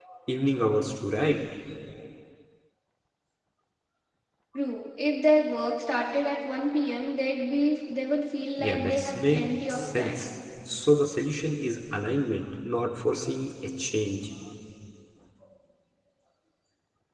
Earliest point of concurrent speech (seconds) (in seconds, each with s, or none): 8.6 s